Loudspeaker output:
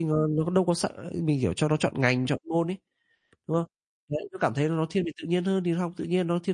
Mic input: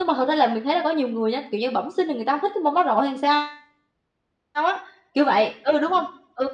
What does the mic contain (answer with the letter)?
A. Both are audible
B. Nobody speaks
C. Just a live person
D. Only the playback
C